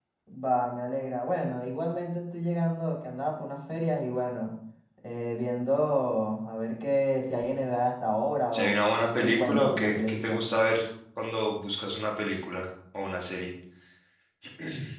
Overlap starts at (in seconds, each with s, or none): 8.5 s